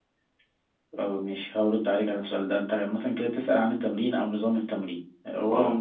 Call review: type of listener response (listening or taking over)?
listening